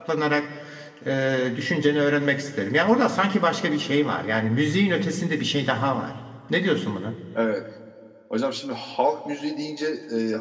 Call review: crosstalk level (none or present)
none